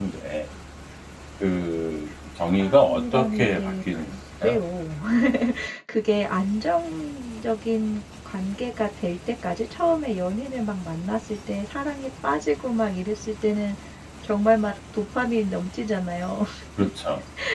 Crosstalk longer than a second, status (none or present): present